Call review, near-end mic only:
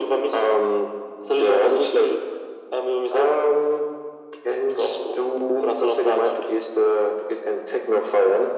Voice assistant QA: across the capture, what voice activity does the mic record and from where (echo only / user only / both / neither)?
echo only